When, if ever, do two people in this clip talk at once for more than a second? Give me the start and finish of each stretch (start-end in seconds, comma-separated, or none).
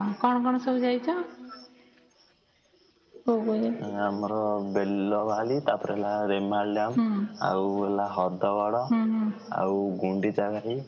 none